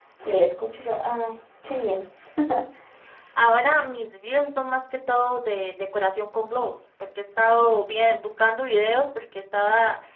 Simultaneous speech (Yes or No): No